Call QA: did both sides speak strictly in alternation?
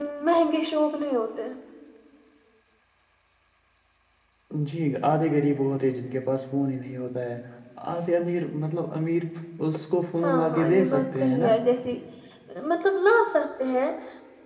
No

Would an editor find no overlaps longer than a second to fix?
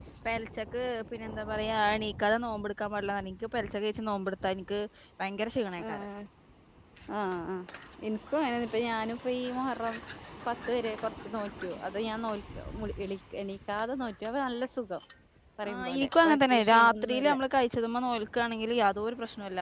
No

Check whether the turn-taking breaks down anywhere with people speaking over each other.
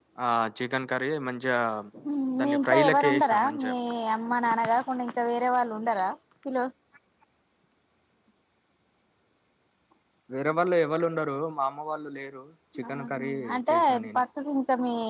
Yes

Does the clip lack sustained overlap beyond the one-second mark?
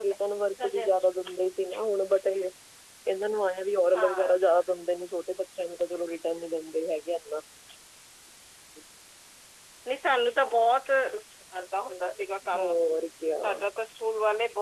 Yes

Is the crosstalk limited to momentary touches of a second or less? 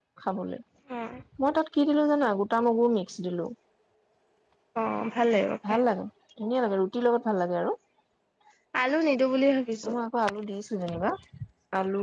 Yes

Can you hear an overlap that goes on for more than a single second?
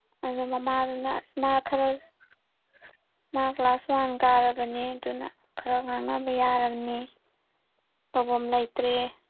No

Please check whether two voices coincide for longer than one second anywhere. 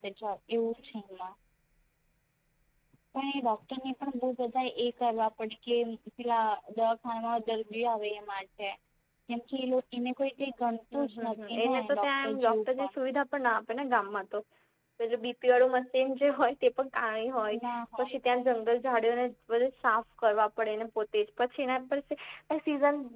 Yes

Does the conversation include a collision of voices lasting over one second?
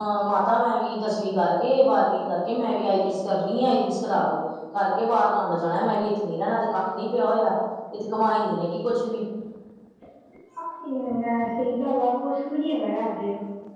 No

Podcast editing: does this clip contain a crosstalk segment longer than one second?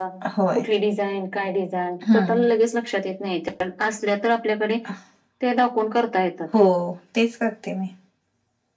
No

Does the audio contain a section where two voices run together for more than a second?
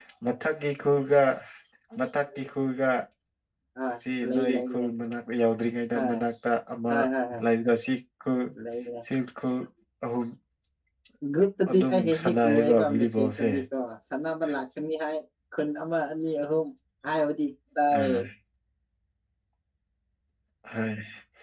Yes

